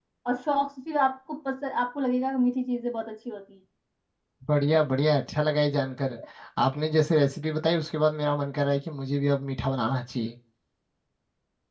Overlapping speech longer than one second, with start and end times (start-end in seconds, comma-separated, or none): none